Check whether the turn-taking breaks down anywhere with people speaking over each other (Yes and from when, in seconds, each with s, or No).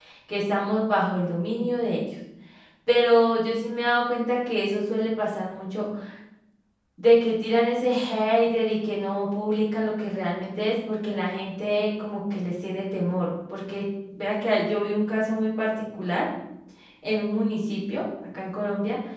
No